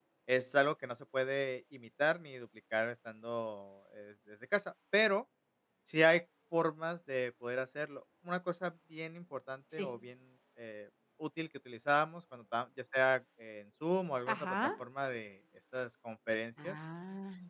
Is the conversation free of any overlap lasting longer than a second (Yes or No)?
Yes